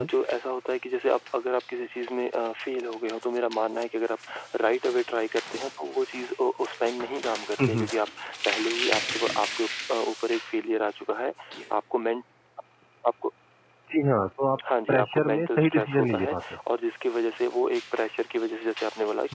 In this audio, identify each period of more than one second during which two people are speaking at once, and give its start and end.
14.9-16.4

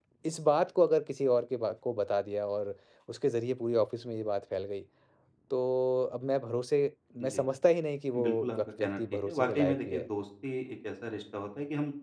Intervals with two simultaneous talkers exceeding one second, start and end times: 8.2-10.0

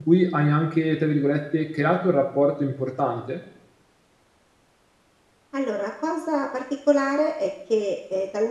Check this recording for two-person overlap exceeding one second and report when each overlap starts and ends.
none

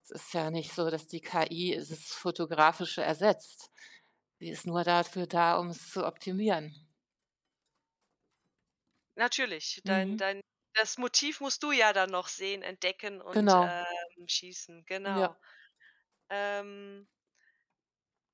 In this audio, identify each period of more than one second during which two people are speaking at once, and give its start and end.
none

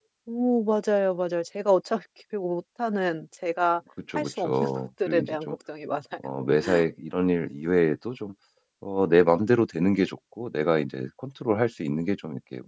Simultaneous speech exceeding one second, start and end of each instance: 4.2-5.6

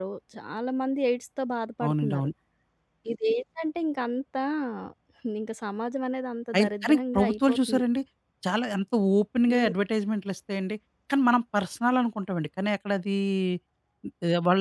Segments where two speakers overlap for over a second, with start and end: 6.5-7.8

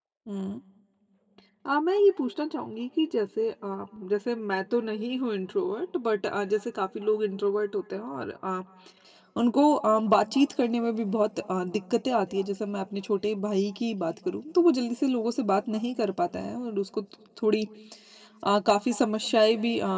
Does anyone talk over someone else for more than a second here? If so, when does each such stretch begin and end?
none

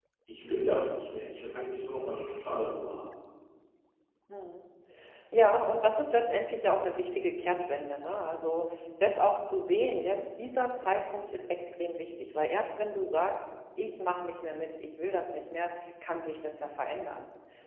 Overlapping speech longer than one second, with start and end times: none

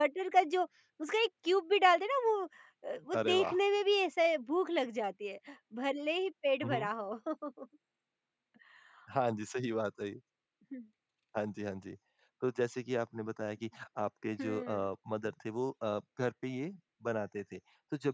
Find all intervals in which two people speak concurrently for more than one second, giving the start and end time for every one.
none

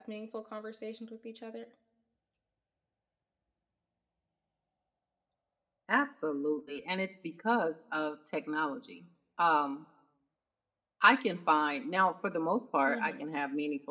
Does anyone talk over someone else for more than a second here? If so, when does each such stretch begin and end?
none

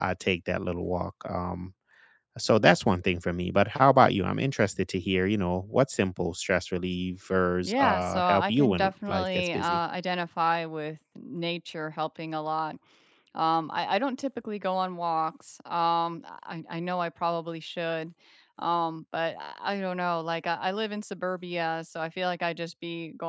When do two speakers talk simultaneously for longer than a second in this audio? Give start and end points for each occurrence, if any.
7.6-9.8

